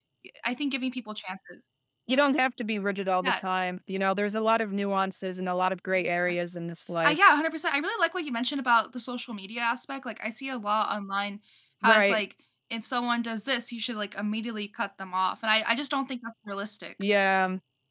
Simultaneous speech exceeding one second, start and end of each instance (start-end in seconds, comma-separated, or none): none